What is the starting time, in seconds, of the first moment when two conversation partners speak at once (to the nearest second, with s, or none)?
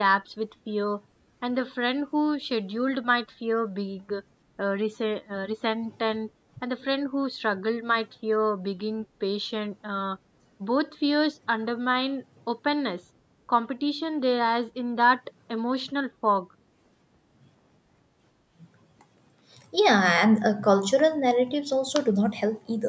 none